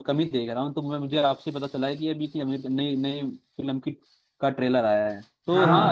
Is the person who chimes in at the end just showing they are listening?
Yes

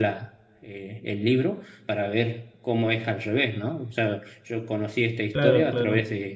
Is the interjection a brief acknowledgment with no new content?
Yes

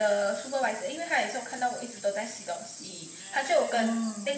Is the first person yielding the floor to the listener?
No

